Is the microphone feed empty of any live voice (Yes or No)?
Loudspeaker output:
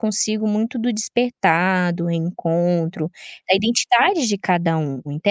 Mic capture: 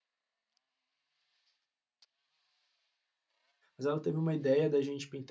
No